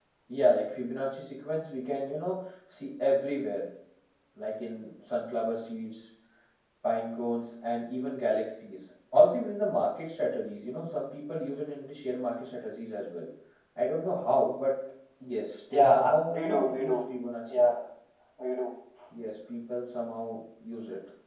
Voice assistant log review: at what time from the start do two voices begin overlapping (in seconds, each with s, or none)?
15.7 s